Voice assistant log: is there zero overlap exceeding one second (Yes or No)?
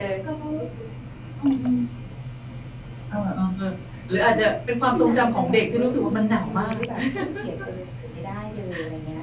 No